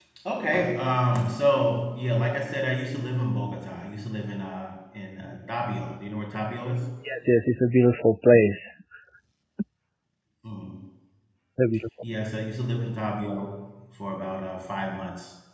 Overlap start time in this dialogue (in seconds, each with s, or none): none